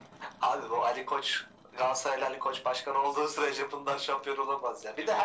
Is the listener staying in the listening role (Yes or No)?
Yes